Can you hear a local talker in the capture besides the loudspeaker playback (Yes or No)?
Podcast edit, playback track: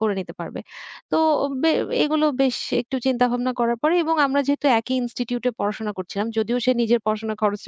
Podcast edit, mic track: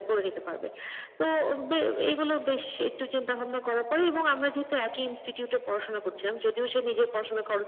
No